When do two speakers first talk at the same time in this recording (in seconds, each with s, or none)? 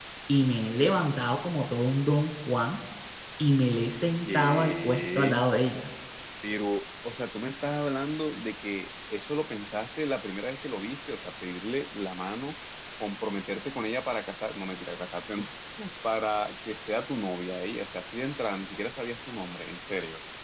4.2 s